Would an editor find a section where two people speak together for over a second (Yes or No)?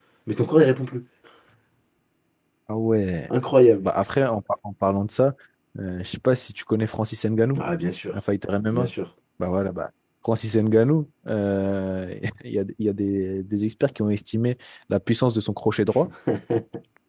No